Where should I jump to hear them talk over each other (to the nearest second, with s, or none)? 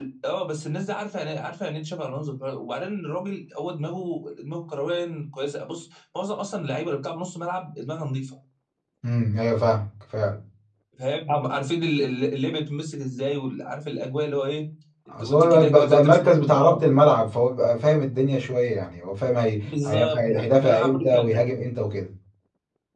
15 s